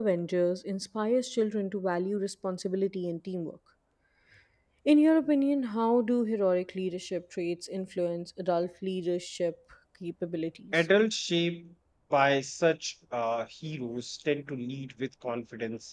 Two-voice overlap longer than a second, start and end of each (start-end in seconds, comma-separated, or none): none